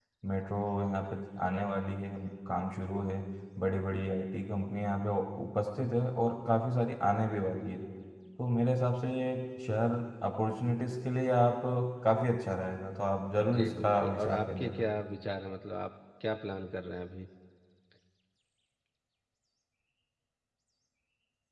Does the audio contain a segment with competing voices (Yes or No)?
Yes